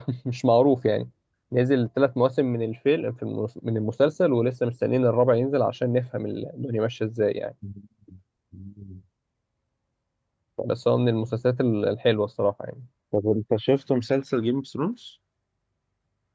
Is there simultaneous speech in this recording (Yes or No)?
No